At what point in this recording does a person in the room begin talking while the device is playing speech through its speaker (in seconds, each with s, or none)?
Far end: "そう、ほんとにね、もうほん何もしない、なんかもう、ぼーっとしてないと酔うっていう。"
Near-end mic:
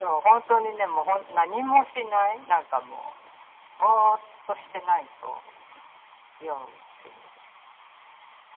none